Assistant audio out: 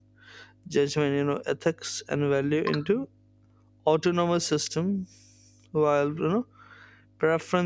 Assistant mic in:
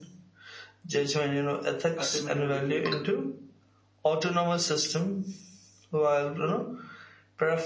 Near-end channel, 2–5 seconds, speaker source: both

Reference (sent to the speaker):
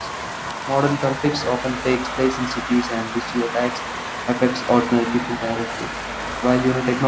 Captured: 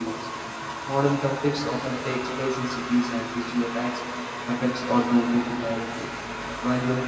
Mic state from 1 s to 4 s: echo only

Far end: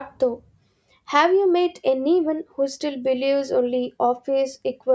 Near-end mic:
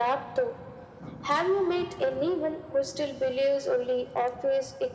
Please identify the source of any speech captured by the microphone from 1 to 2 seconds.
echo only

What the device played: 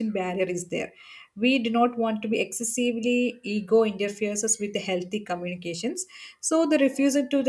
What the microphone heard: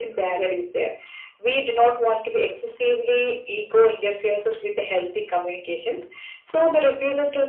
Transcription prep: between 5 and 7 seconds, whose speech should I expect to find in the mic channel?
echo only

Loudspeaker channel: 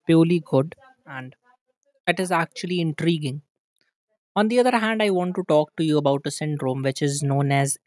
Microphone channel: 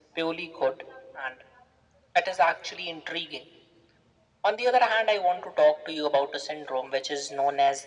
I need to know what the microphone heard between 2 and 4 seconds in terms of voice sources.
echo only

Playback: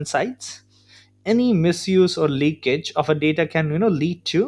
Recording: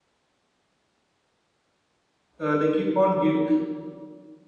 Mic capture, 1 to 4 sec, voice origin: user only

